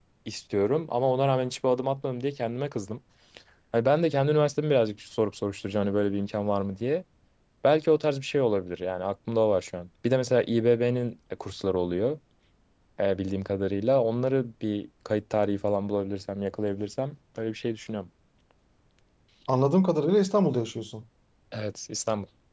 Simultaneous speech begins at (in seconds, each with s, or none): none